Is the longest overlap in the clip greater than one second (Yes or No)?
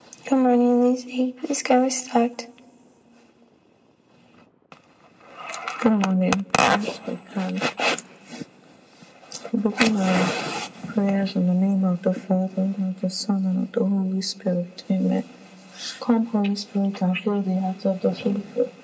No